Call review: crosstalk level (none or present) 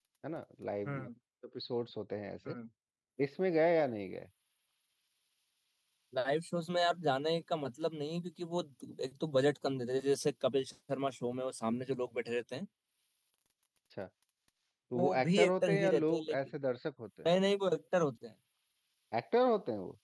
present